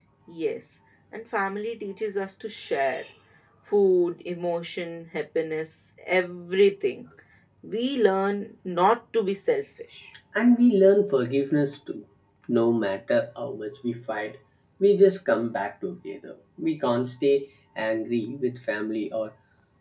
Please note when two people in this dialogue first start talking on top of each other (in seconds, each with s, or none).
none